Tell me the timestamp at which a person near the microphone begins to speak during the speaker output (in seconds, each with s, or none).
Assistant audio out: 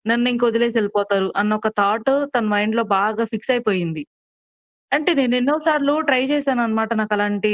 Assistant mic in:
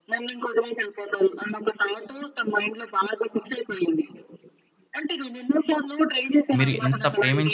6.6 s